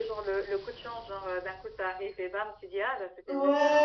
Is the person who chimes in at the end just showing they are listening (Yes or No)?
No